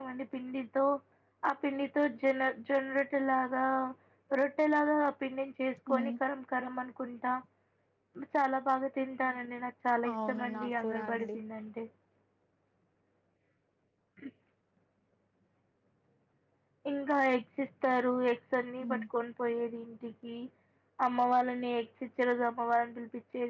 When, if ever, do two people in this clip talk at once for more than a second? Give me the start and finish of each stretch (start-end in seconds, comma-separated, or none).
10.1-11.4